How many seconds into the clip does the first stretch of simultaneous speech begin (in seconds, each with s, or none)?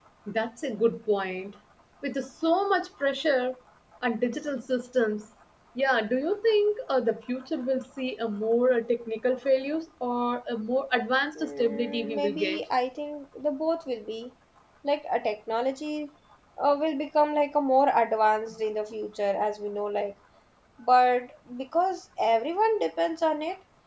11.4 s